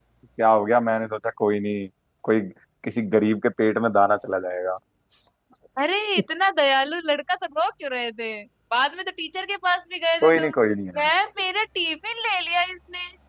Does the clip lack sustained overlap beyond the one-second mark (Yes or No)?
Yes